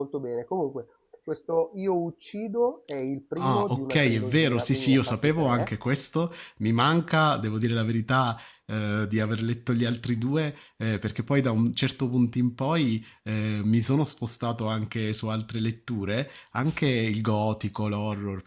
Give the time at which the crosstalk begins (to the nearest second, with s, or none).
3 s